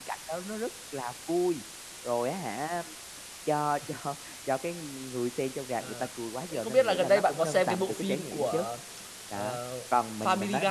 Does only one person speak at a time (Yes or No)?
No